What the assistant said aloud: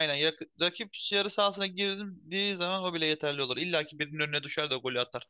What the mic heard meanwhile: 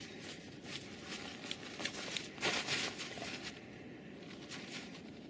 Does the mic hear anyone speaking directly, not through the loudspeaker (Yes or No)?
No